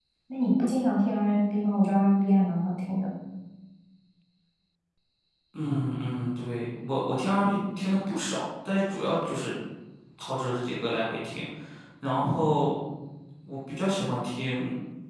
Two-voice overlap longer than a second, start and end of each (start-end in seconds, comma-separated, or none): none